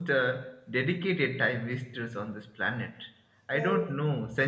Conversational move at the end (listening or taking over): listening